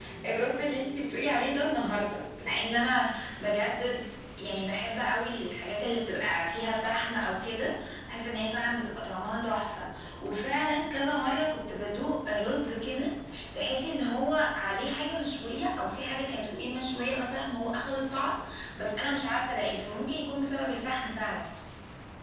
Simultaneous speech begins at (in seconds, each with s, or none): none